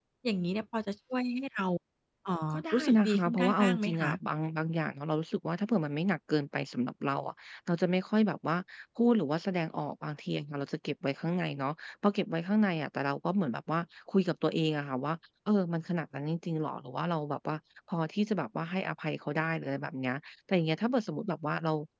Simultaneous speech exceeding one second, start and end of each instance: 2.5-4.1

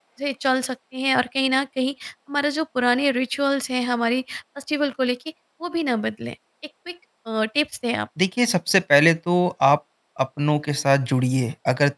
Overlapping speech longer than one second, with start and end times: none

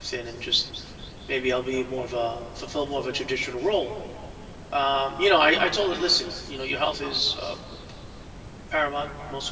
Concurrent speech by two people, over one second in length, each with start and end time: none

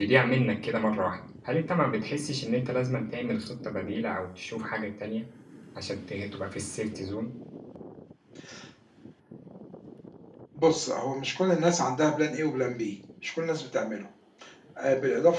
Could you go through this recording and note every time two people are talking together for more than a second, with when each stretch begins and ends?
none

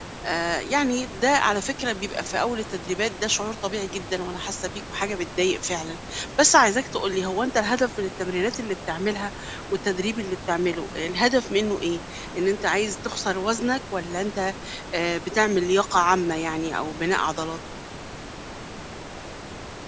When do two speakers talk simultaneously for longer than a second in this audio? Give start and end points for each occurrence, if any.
none

